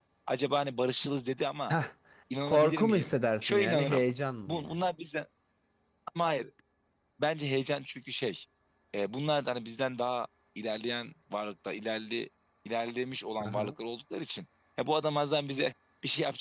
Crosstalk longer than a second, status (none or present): present